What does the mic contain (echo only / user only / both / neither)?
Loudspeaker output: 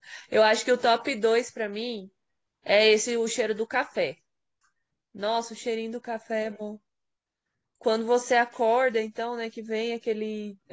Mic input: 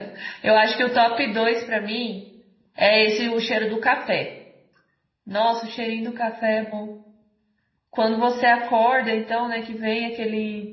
echo only